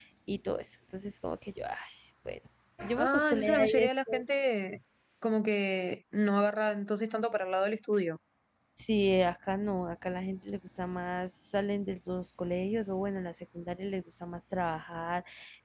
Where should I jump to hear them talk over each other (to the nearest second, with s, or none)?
3 s